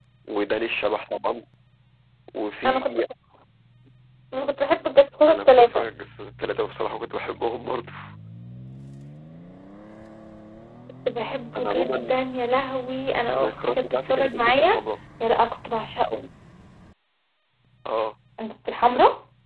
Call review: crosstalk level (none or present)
present